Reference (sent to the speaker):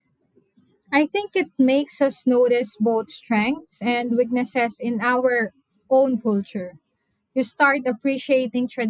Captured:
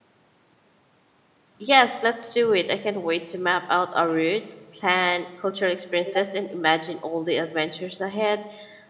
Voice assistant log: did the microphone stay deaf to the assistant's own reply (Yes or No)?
Yes